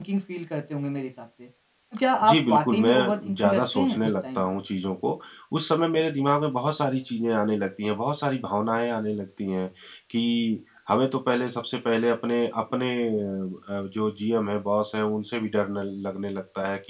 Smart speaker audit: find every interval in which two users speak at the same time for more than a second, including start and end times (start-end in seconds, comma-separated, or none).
2.2-4.4